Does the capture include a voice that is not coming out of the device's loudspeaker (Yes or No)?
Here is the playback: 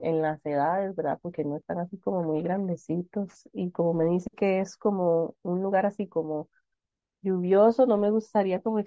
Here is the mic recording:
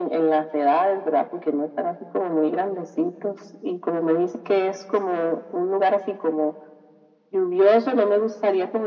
No